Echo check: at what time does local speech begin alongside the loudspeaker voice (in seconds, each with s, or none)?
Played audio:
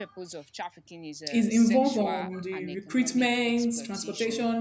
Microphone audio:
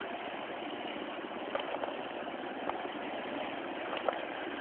none